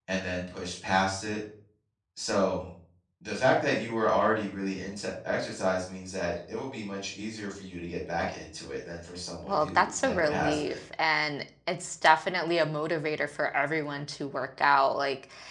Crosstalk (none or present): present